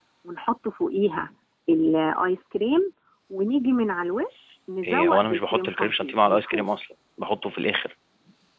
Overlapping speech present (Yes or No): Yes